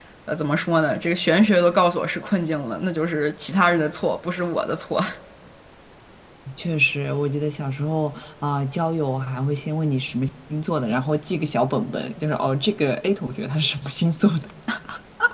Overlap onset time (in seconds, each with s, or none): none